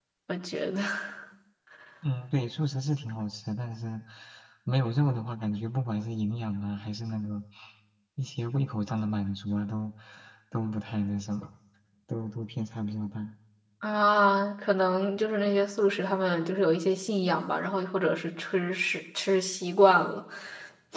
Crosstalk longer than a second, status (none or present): none